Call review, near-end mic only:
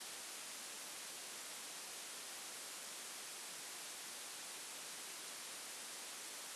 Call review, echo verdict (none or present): none